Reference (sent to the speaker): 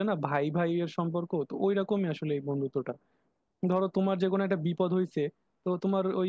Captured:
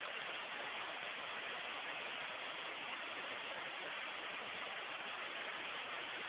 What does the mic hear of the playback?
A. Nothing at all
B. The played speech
A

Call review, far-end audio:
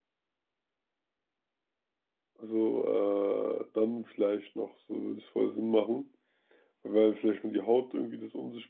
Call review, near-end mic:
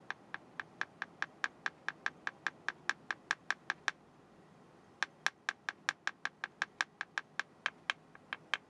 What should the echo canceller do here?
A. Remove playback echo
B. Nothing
B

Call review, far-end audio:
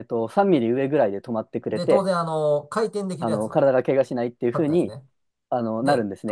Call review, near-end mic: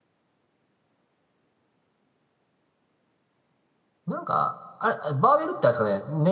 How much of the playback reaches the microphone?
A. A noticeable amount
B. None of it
B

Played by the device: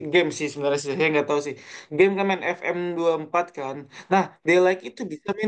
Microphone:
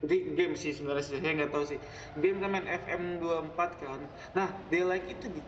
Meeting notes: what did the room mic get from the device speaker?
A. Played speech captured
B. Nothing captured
A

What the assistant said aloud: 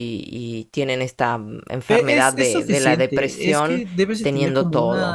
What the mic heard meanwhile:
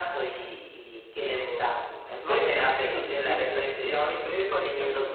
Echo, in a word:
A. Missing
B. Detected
B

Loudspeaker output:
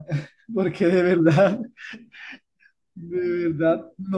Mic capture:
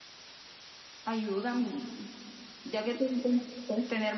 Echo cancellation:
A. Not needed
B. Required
A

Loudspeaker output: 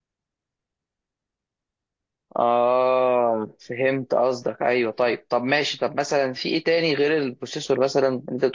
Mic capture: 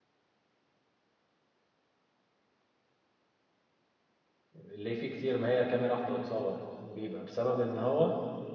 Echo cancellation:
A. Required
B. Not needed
B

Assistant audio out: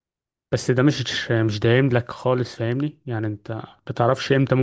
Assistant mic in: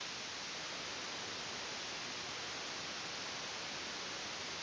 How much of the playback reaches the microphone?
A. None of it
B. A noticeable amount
A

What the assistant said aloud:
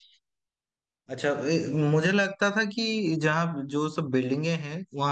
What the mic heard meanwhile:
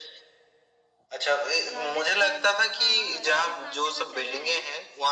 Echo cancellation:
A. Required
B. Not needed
A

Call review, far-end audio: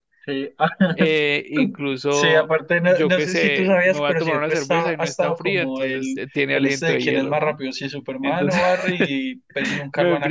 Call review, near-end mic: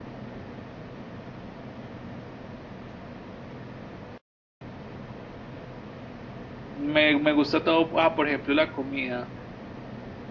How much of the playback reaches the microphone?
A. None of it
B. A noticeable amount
A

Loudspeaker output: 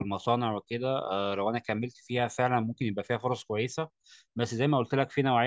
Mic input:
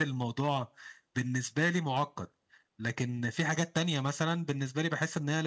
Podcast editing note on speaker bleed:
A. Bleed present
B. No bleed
B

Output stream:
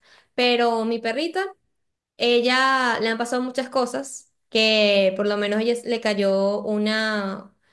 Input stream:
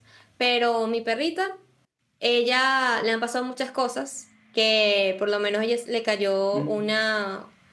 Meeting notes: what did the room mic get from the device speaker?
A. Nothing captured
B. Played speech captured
B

